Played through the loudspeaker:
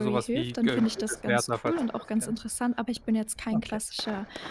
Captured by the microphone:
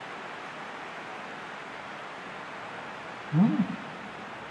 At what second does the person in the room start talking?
3 s

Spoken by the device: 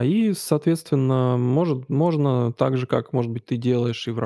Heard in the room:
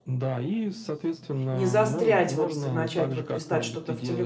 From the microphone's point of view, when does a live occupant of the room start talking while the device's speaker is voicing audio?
2 s

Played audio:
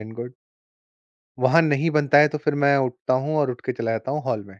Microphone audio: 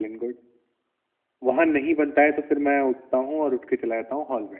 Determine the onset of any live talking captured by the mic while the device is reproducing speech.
none

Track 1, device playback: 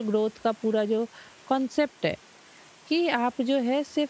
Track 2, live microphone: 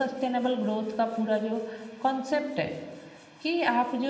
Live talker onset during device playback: none

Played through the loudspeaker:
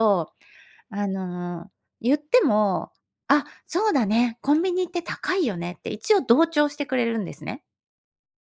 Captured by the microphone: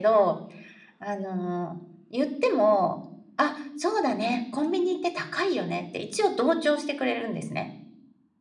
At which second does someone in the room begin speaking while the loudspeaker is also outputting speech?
none

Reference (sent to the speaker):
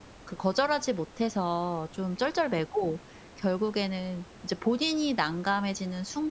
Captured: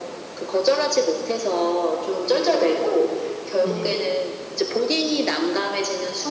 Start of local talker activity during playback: 4 s

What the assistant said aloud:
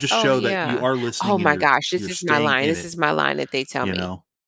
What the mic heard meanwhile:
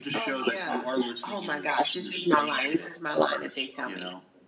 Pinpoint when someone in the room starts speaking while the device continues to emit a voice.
none

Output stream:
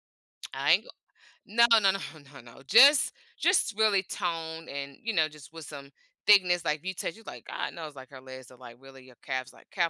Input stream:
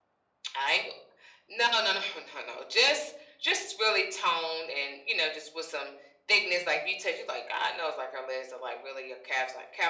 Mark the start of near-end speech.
none

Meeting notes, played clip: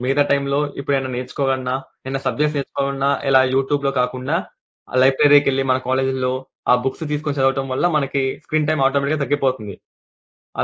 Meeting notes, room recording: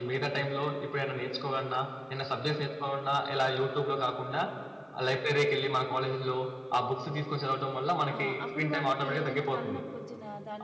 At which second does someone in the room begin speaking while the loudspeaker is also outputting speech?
8 s

